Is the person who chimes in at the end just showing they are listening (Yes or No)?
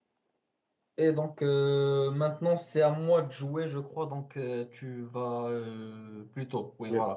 Yes